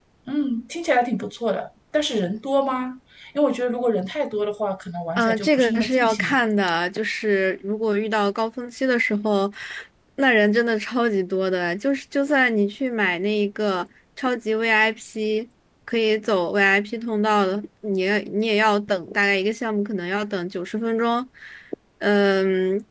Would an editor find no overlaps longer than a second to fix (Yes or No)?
No